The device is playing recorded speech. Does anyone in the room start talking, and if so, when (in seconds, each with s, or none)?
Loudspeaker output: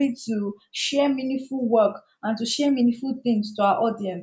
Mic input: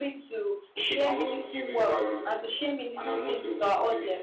0.8 s